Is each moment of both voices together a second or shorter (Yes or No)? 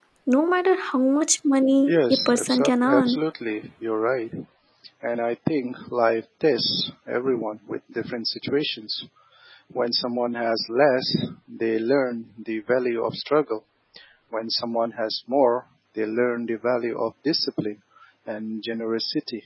No